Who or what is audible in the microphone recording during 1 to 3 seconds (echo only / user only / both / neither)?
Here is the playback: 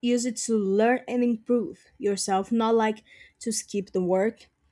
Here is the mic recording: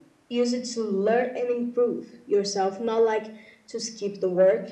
echo only